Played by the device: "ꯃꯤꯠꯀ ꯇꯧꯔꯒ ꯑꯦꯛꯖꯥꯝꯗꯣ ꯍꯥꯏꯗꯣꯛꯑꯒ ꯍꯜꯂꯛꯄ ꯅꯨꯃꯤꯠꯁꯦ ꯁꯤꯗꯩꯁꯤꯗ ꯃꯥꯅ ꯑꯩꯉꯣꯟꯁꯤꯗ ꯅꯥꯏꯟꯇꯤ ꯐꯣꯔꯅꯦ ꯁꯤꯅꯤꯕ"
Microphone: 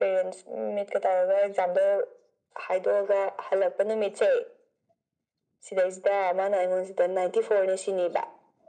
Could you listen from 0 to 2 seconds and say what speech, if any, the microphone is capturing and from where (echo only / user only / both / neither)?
echo only